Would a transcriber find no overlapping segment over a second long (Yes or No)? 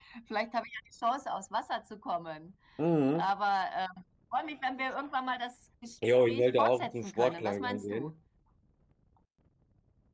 No